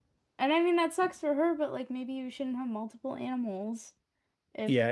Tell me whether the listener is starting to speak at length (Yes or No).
Yes